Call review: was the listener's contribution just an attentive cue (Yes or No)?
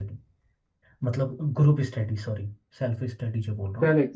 No